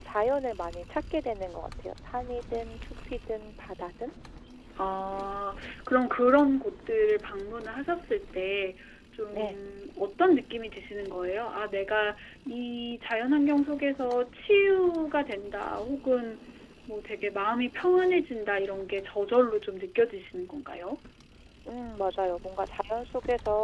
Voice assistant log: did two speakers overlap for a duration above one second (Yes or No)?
No